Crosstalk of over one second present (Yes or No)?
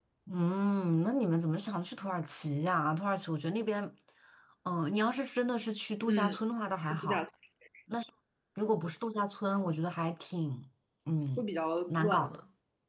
No